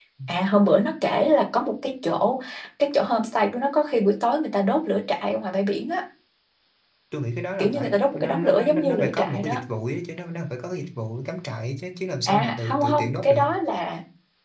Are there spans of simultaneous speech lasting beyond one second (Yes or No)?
Yes